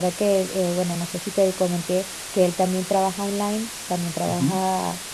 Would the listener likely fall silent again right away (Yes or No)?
Yes